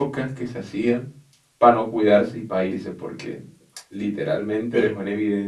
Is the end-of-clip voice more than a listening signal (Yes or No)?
No